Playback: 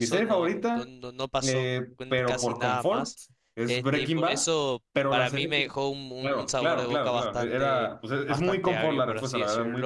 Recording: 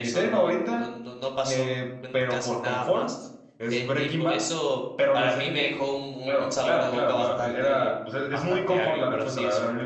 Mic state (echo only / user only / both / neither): echo only